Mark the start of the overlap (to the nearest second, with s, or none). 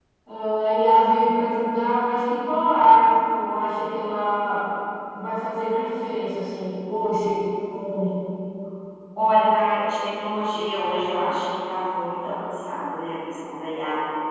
none